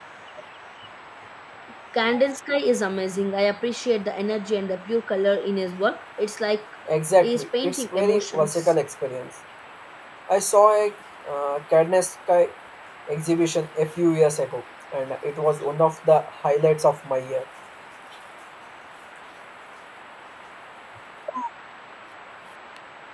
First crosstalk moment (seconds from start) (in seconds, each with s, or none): 7.2 s